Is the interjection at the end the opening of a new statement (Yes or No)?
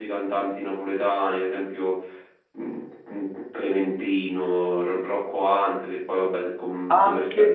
Yes